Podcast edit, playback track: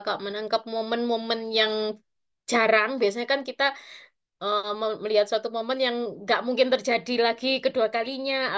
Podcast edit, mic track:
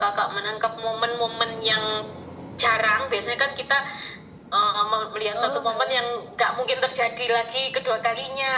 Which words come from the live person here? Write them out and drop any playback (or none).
Oh, alah.